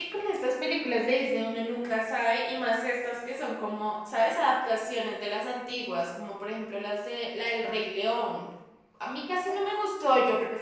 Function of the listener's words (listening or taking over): listening